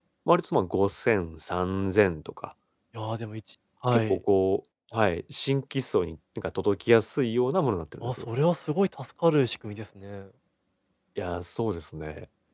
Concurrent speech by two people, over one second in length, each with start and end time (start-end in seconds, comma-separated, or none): none